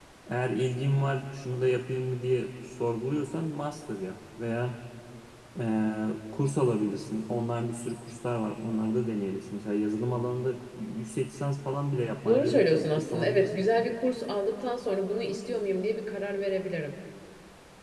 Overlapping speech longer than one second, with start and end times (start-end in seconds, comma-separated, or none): 12.2-13.5